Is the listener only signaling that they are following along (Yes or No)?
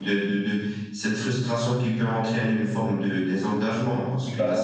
Yes